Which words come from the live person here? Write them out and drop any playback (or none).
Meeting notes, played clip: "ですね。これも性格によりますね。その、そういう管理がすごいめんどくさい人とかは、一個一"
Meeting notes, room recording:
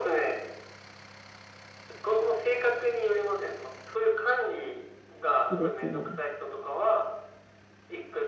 いいですね。